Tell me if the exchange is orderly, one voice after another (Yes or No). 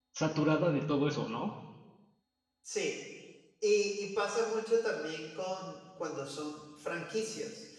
Yes